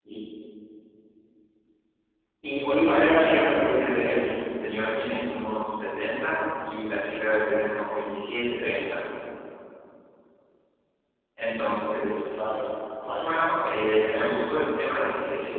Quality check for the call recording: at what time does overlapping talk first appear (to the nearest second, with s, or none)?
3 s